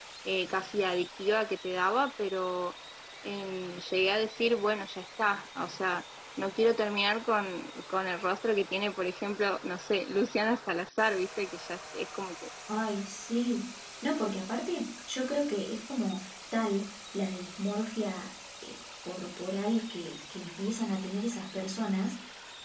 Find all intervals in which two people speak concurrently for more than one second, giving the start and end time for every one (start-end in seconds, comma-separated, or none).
none